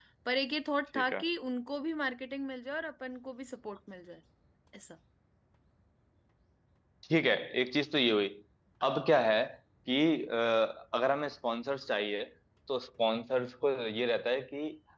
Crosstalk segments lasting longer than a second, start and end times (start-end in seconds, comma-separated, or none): none